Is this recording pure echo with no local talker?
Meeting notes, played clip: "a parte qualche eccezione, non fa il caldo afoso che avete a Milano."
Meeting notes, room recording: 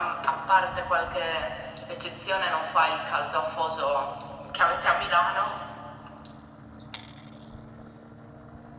Yes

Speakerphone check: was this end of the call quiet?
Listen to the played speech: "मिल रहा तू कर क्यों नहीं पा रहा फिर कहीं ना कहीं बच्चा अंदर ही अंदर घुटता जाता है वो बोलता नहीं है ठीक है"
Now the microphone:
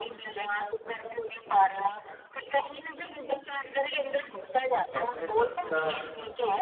No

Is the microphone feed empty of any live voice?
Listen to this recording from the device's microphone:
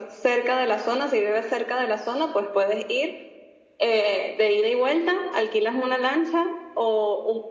Yes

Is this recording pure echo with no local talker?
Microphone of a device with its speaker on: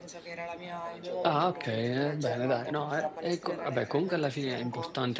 No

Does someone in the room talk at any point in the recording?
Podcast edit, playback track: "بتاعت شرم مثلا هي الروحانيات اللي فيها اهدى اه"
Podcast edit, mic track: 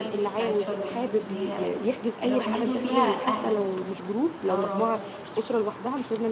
Yes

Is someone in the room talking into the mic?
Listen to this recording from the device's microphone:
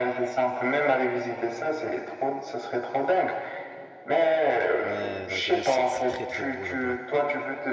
Yes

